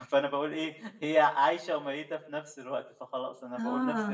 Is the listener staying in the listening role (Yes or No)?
No